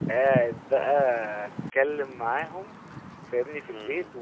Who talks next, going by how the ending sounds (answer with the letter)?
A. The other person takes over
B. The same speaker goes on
B